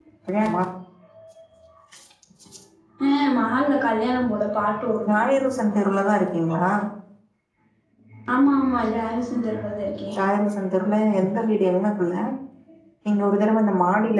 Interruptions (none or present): none